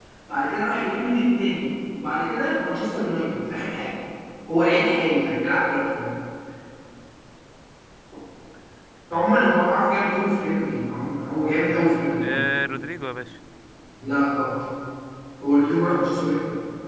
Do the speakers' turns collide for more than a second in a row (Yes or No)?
No